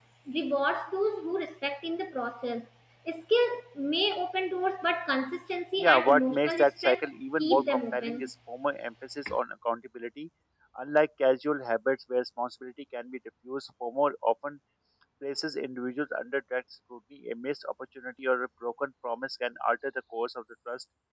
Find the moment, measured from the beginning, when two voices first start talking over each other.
5.8 s

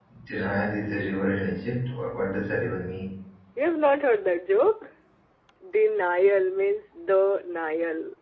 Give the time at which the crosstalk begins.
none

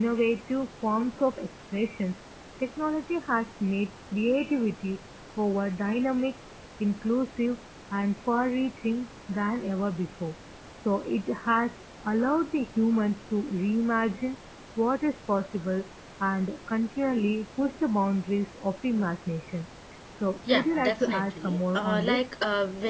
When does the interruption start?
20.5 s

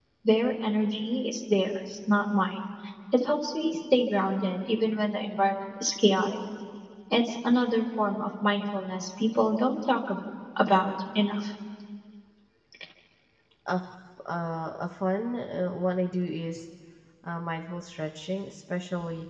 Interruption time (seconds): none

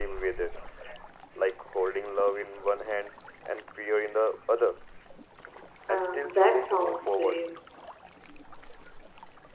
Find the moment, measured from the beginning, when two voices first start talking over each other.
5.9 s

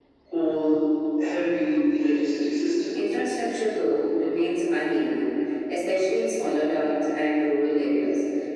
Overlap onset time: none

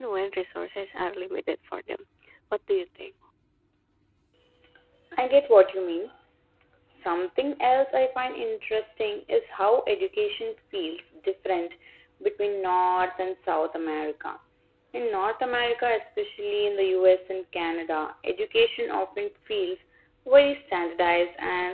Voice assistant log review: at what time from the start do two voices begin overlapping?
none

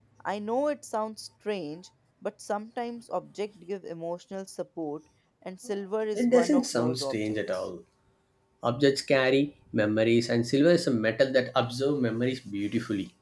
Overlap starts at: 6.1 s

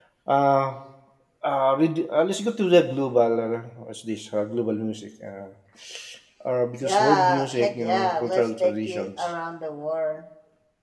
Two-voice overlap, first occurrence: 6.8 s

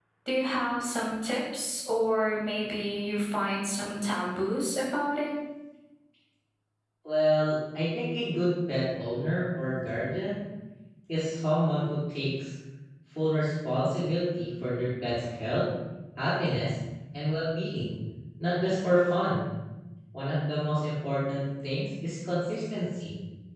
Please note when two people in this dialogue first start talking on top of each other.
none

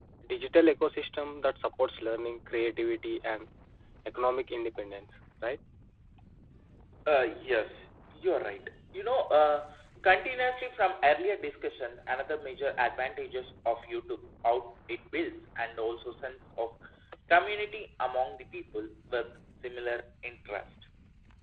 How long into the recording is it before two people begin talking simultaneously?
none

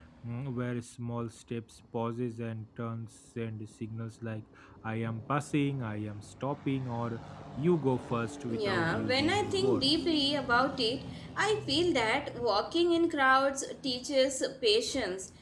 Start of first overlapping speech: 8.5 s

